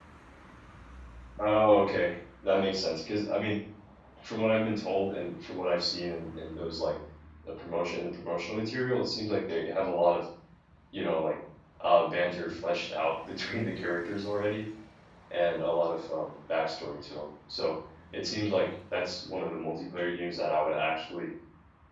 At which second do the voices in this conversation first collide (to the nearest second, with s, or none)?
none